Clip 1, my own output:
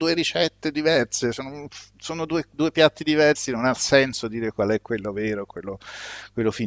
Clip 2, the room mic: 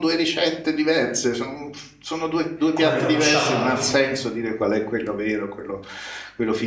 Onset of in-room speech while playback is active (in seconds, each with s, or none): 2.7 s